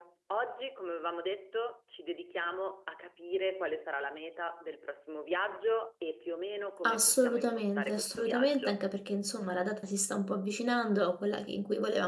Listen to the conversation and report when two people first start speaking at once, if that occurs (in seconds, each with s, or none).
6.8 s